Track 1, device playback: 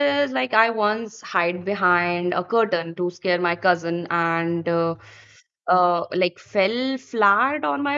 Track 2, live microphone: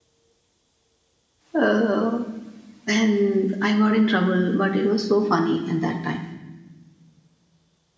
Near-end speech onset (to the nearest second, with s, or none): 2 s